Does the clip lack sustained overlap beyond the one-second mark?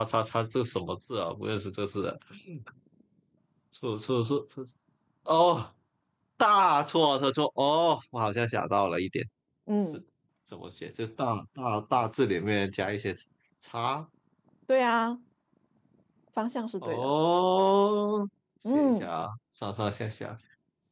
Yes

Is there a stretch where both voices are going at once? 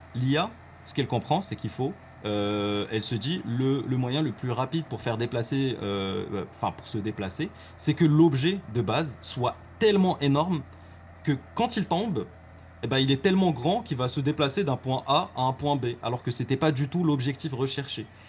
No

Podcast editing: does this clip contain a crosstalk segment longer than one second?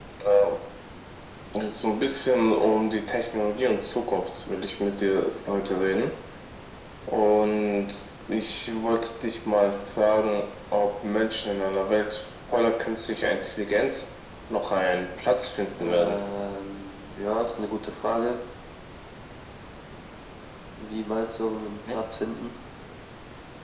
No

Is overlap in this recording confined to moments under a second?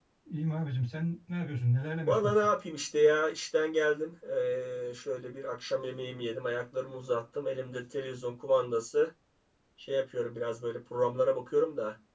Yes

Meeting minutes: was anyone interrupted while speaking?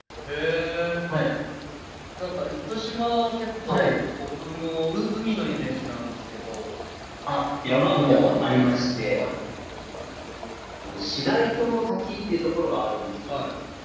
Yes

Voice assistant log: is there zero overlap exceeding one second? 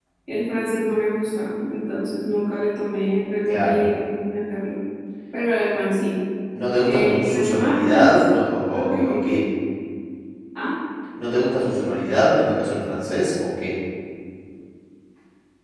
No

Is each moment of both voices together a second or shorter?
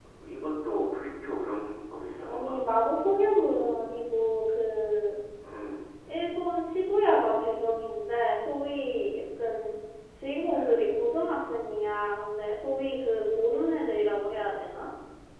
Yes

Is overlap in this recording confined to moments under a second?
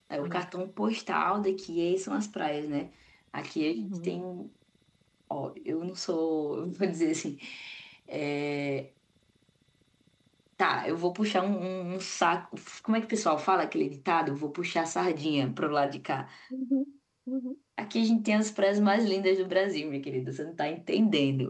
Yes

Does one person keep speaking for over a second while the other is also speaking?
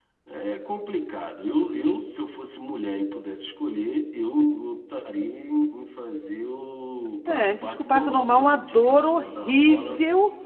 Yes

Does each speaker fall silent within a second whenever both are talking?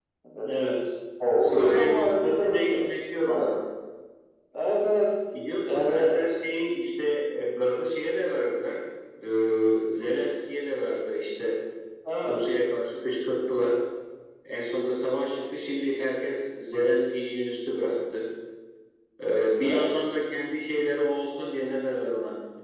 No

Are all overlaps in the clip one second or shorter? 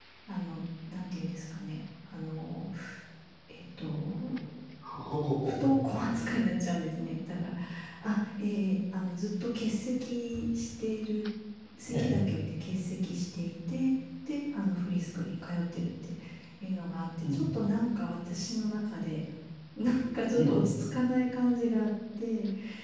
Yes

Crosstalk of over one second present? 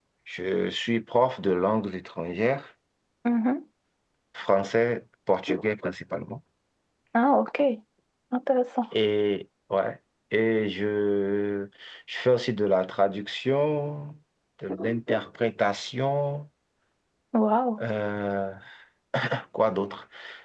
No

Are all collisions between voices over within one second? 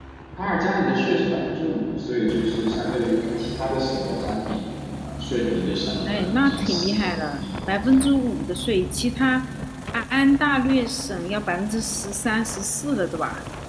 No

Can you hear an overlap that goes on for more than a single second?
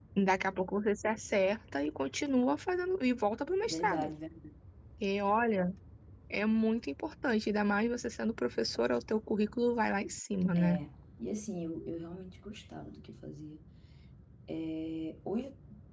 No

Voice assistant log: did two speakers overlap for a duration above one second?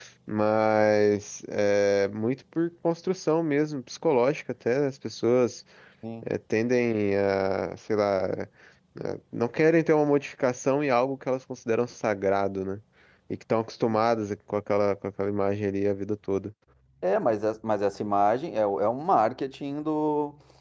No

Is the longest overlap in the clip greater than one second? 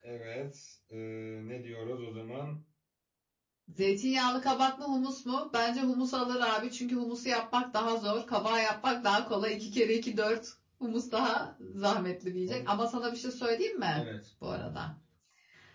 No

